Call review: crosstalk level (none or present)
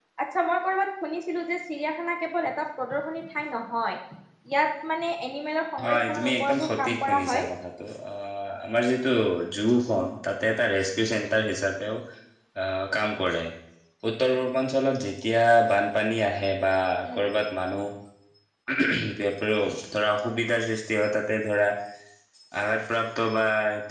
present